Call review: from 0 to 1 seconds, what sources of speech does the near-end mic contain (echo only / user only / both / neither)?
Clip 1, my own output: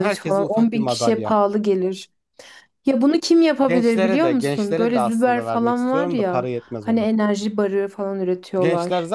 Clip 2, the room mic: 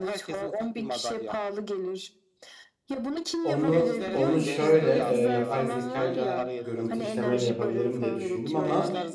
echo only